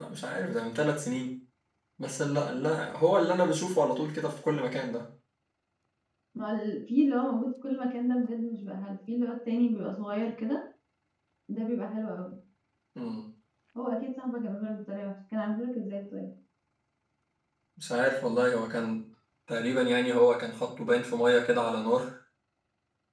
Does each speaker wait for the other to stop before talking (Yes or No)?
Yes